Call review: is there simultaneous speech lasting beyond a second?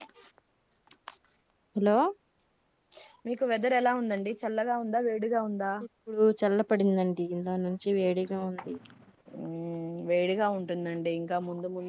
No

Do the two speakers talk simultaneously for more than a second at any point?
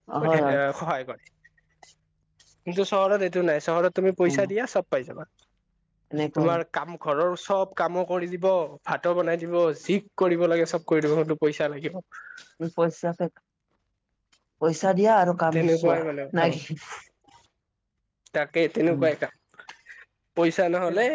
No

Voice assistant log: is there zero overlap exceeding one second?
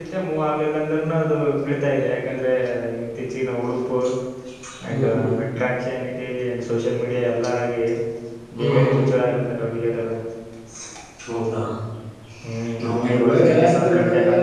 No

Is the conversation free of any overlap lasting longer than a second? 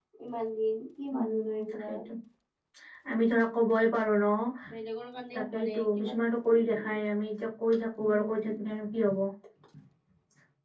No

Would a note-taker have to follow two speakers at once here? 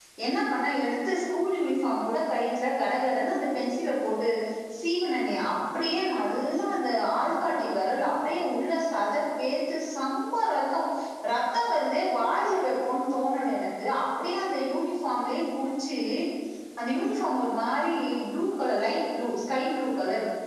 No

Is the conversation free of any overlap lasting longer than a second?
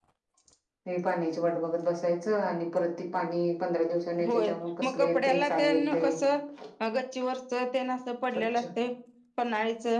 No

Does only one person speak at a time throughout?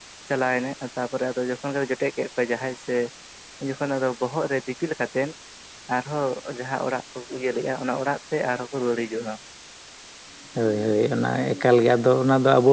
Yes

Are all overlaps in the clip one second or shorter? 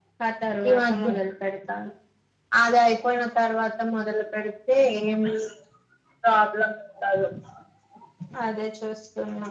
Yes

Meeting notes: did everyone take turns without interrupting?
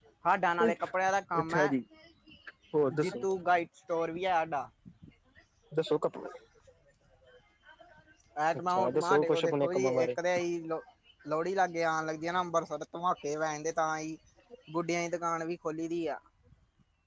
No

